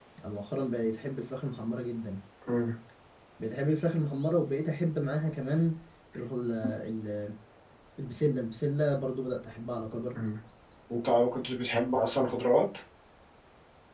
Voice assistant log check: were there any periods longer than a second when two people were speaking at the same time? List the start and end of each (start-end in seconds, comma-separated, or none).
none